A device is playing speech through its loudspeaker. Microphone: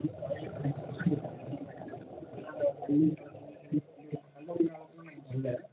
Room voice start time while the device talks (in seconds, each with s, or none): none